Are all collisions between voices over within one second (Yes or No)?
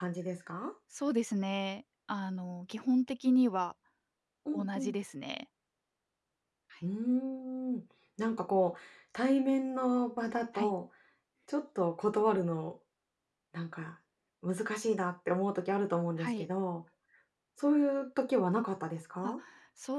Yes